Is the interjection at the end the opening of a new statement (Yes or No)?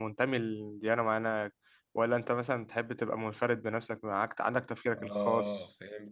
Yes